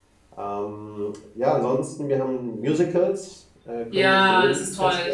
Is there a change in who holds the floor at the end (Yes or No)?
Yes